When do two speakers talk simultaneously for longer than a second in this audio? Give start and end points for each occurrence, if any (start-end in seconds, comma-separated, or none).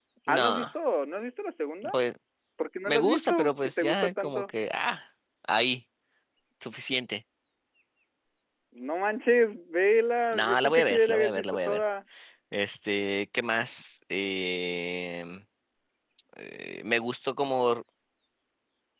2.8-4.5, 10.3-11.8